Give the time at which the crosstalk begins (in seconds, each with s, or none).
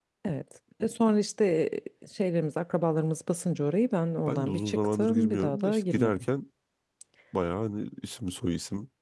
4.3 s